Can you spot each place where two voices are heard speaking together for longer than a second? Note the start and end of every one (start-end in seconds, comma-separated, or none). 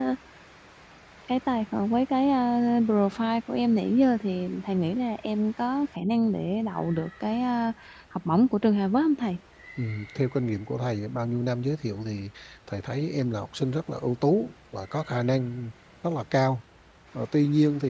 none